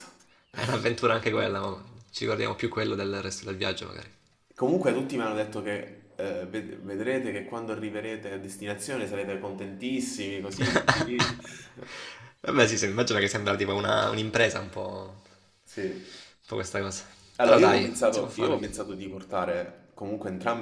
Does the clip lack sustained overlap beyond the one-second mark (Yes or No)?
No